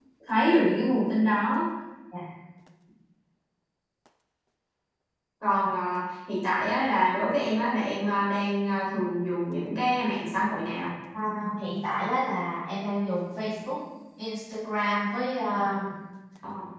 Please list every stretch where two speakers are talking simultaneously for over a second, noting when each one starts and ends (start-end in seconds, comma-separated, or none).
none